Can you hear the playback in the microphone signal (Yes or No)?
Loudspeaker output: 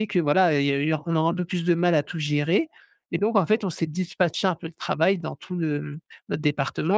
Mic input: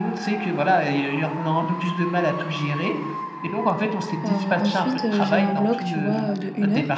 Yes